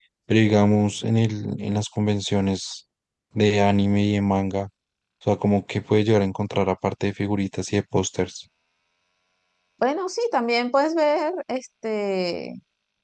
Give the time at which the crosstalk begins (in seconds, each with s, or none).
none